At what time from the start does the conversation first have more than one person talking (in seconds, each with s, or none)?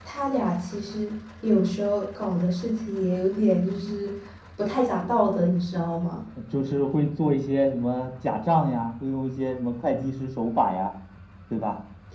none